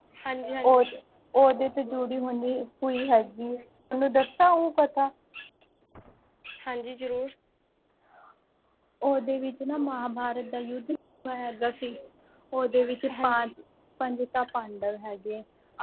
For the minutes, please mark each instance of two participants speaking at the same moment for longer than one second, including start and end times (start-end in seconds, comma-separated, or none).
none